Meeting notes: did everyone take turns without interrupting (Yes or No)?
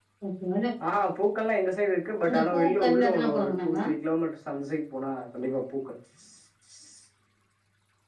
No